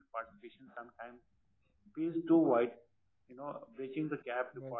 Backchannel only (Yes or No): Yes